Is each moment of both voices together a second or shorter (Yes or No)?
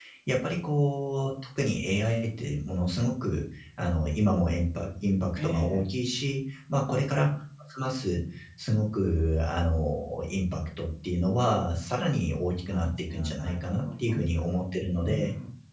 No